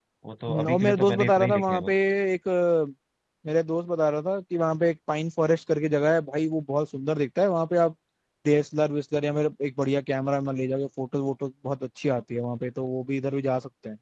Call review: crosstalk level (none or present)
present